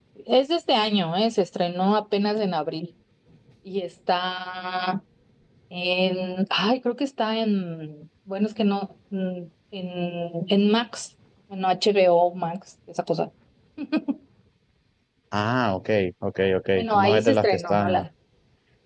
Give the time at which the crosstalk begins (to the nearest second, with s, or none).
17 s